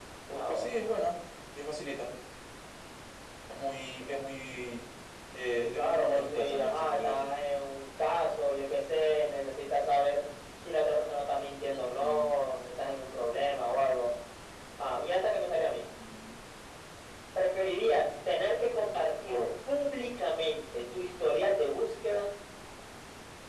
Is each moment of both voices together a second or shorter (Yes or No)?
No